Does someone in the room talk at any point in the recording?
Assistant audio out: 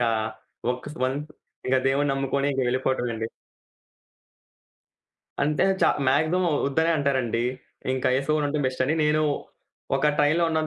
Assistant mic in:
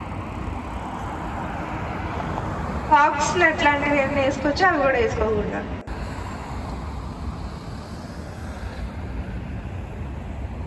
Yes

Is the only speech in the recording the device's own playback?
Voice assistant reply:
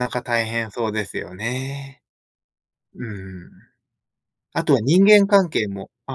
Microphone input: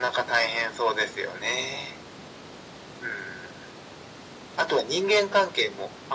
Yes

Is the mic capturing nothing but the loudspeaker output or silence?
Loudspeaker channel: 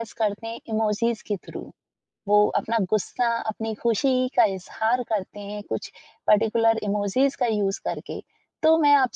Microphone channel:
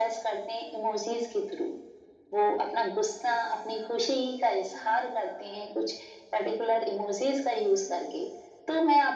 Yes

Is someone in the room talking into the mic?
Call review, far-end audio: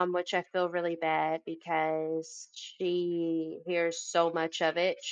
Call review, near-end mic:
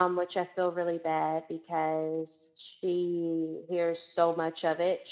No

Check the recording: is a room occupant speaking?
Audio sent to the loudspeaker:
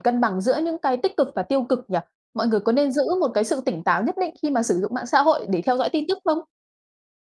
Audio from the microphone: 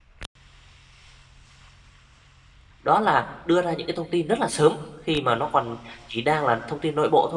Yes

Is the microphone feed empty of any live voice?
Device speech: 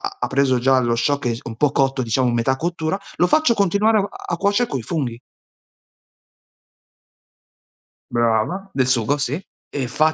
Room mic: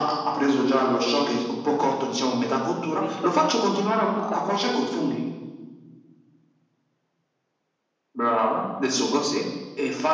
No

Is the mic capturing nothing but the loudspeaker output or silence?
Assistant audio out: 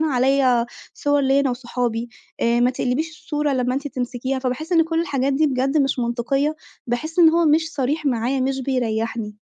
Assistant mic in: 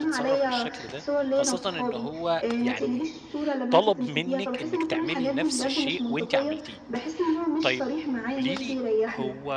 No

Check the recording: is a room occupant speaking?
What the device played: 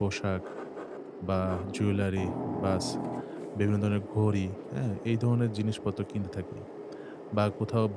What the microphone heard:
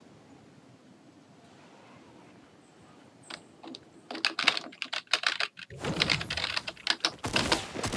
No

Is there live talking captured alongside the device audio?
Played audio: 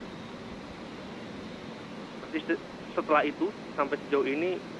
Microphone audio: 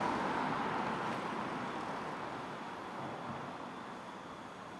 No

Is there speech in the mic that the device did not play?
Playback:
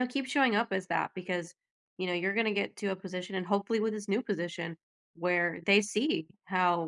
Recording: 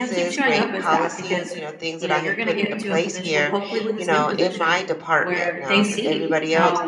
Yes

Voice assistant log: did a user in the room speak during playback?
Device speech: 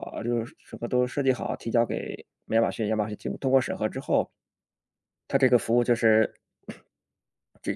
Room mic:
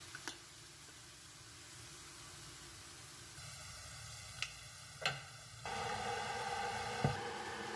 No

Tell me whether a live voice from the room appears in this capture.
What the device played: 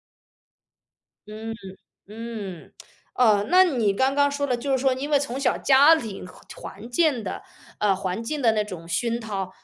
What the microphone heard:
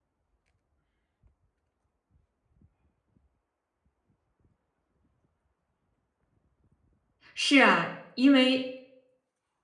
Yes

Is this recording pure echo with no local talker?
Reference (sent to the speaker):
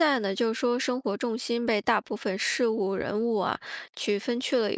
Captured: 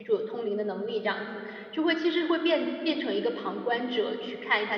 No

